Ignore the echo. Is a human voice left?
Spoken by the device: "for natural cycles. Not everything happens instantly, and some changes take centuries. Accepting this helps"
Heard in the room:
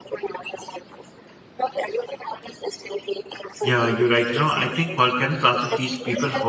Yes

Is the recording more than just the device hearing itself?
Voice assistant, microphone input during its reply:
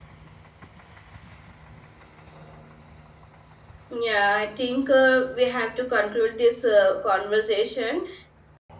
Yes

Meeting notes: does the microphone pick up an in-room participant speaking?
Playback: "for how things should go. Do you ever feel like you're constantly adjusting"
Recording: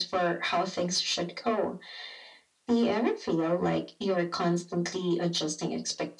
No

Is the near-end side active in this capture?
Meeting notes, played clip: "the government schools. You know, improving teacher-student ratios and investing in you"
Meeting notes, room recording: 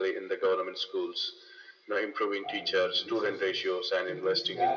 Yes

